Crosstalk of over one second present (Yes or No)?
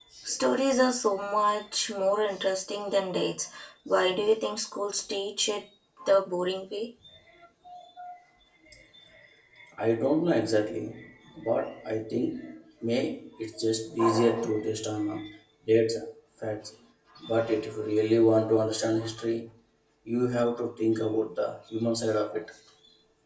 No